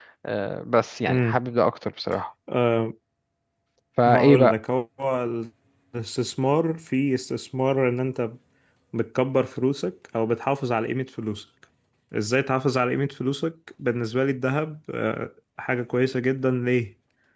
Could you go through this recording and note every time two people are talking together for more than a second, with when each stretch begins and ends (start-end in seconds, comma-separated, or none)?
none